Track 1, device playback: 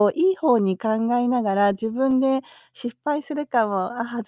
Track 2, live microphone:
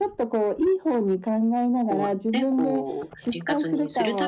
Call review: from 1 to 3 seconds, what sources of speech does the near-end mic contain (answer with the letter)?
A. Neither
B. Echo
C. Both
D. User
C